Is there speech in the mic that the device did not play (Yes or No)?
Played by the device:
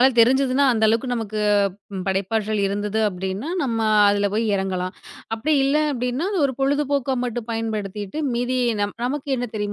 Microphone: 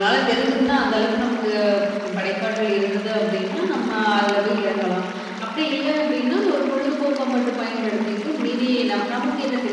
No